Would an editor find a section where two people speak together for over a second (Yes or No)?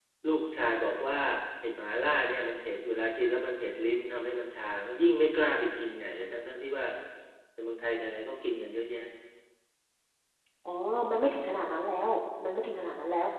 No